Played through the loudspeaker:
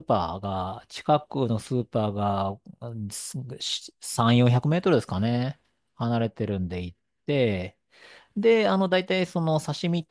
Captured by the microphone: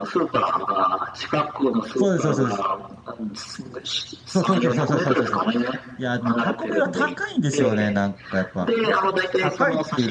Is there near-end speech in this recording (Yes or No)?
Yes